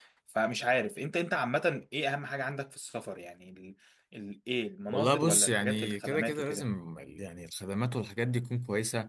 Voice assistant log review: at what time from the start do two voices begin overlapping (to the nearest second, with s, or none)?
5 s